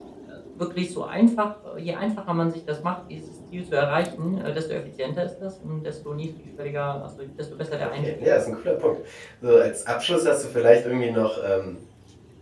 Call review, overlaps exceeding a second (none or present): none